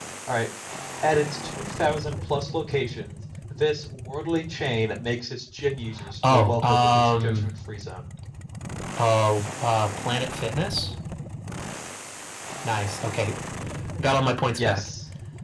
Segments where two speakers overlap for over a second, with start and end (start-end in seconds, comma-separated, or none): 6.3-7.5